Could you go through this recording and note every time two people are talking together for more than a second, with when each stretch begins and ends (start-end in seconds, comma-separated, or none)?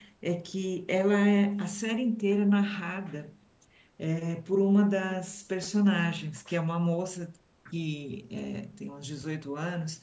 none